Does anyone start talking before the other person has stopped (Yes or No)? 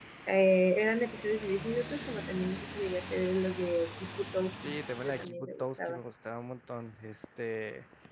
Yes